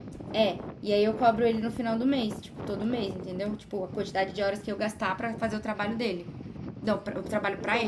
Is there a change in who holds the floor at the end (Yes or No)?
Yes